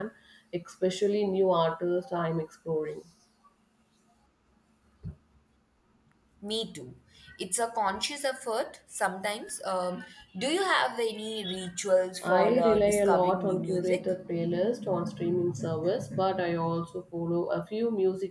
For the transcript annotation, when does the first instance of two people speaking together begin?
12.2 s

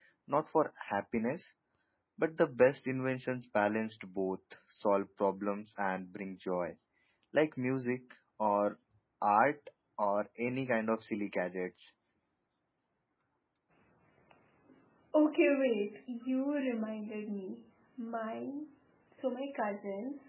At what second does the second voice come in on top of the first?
none

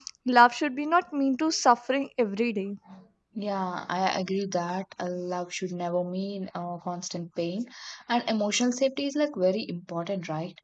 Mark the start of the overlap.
none

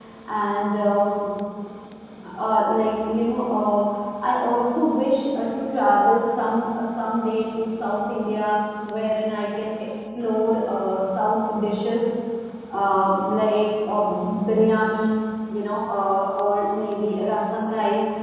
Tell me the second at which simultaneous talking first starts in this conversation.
none

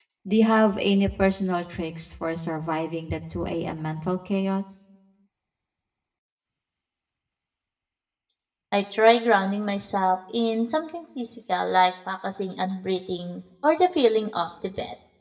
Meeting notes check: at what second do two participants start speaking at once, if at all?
none

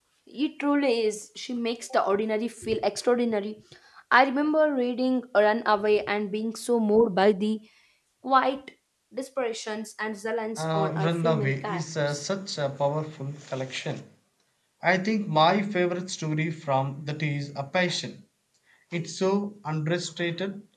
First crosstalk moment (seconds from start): 10.6 s

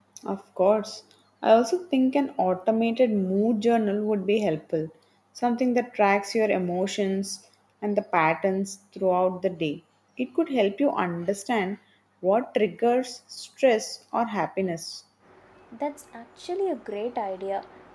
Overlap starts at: none

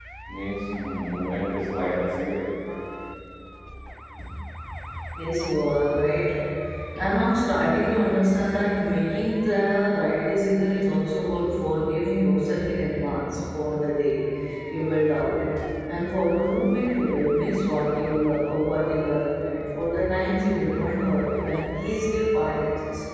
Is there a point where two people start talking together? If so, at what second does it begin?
none

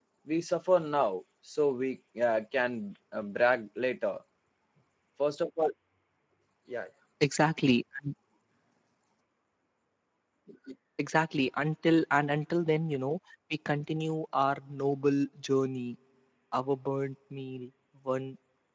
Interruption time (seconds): none

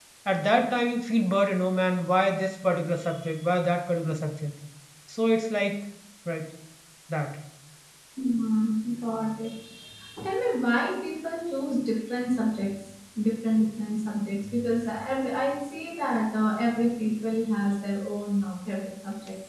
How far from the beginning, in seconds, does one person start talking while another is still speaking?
none

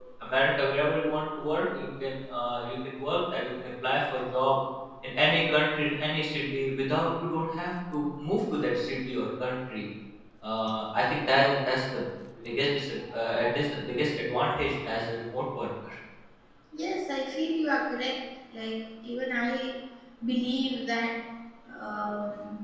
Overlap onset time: none

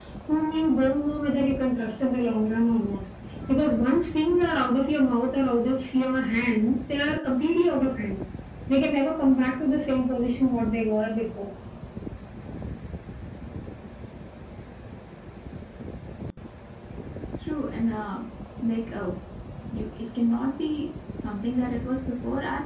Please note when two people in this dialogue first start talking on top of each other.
none

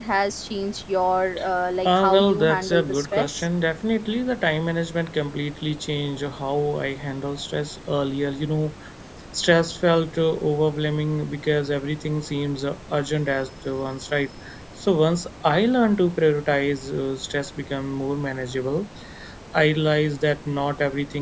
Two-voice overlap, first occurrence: 1.9 s

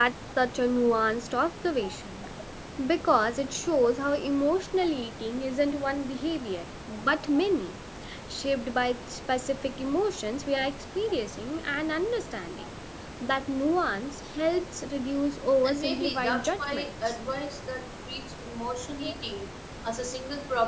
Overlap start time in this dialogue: 15.6 s

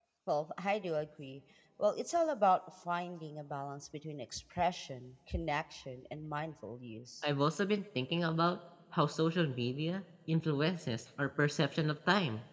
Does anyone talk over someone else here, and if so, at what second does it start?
none

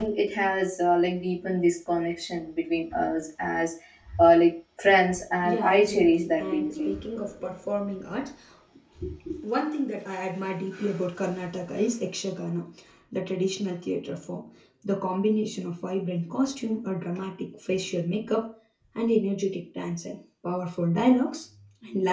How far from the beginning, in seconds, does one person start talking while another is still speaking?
5.4 s

